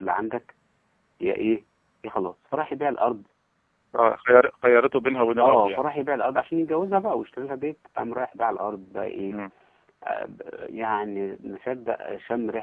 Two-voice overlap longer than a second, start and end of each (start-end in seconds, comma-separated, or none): none